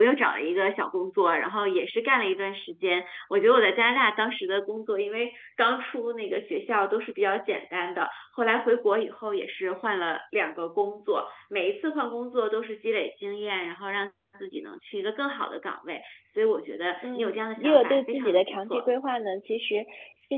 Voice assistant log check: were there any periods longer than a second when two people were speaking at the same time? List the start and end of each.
17.0-18.8

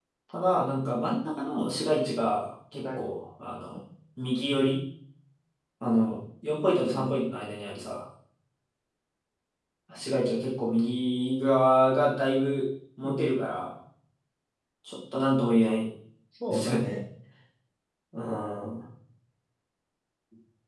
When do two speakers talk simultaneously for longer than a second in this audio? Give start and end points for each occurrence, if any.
none

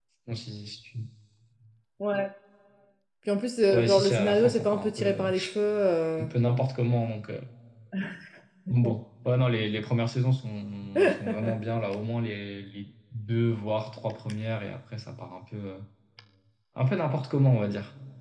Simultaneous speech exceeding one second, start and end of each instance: 3.7-5.3

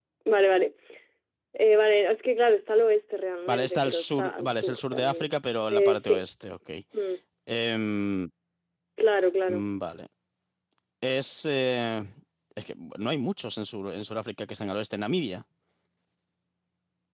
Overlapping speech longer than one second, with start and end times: 3.5-5.3

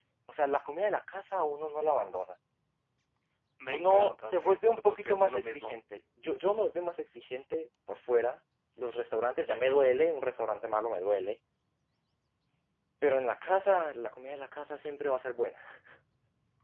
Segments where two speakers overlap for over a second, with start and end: 3.7-5.7

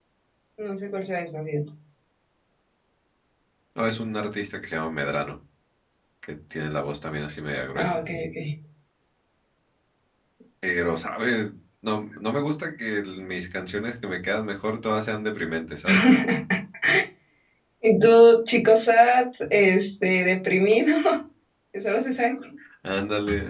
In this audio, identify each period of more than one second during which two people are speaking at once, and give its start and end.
none

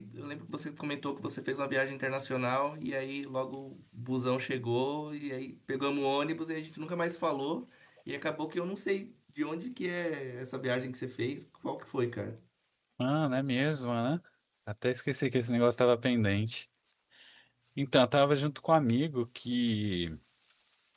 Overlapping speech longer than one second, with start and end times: none

